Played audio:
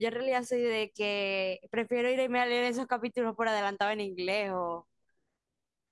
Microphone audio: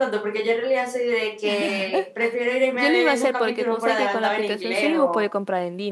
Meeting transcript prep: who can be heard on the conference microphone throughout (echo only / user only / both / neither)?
both